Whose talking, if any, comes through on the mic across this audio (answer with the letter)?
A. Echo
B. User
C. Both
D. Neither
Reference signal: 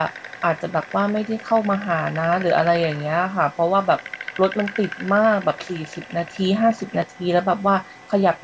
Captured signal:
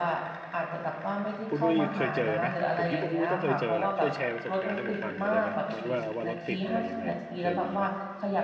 C